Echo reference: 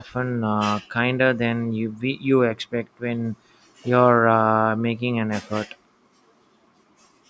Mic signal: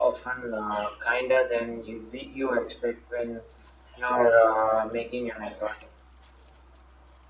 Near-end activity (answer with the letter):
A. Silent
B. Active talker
A